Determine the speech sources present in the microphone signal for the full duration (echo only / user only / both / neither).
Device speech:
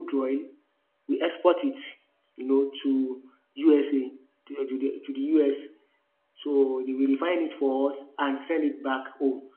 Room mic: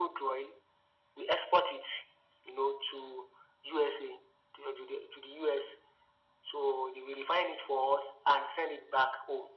echo only